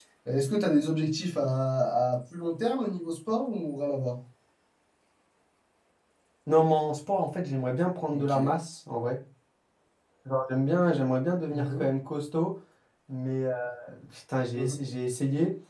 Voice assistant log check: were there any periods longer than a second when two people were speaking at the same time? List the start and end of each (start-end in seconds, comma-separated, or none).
none